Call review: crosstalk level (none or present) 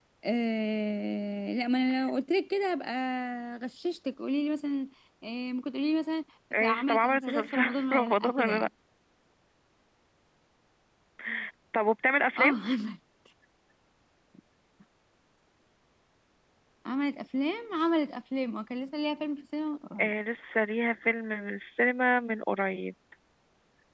present